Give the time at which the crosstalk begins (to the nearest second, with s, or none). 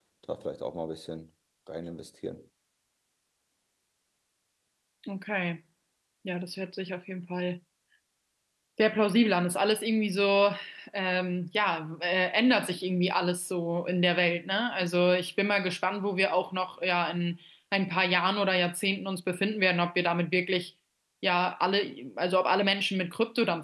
none